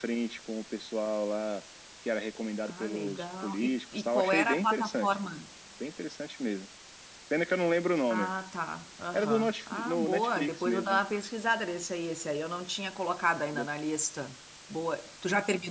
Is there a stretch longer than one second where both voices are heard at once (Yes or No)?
Yes